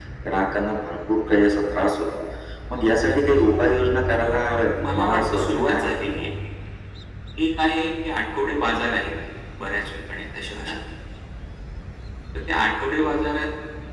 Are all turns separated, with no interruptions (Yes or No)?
No